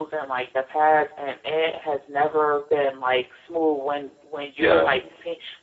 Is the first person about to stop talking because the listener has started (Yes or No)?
No